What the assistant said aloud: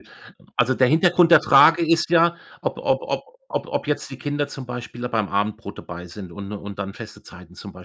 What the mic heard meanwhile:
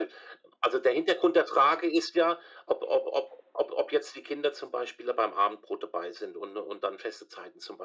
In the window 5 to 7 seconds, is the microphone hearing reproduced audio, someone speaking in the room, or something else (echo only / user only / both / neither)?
echo only